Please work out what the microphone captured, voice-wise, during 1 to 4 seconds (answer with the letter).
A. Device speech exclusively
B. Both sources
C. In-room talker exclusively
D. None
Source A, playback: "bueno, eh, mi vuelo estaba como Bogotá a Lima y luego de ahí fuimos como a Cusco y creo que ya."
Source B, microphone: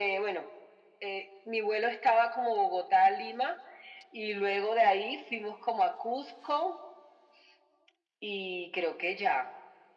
A